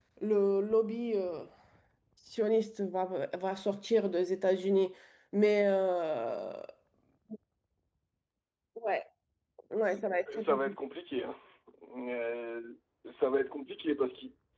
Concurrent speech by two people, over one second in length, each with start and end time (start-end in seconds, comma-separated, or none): none